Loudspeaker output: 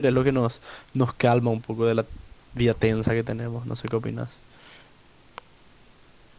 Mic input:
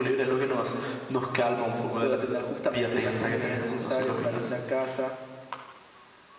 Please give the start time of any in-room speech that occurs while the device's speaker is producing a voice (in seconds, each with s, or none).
1.9 s